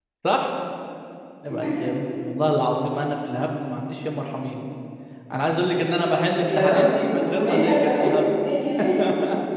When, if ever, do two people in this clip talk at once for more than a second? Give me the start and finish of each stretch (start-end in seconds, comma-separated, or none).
6.3-8.3